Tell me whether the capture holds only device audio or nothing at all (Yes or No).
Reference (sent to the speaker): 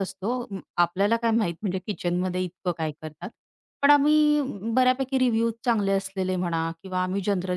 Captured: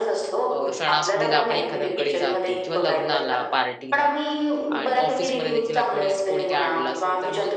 No